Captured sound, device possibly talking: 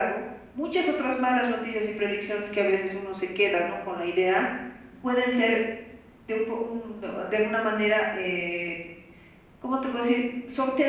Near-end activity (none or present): none